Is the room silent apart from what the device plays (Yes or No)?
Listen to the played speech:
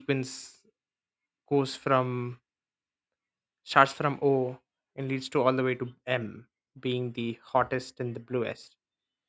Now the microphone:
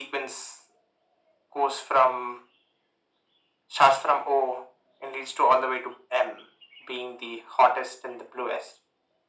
Yes